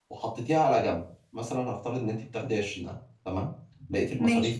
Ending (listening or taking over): listening